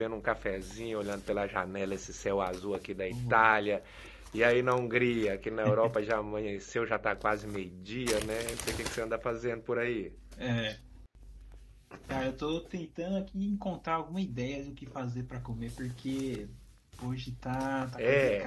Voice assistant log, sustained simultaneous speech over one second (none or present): none